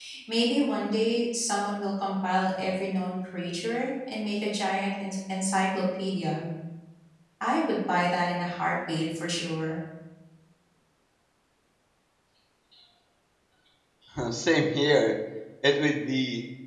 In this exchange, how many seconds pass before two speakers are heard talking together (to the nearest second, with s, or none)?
none